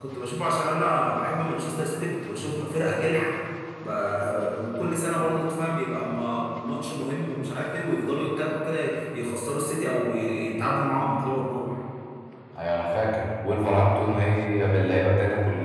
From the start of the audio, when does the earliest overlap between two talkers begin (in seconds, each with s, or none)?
none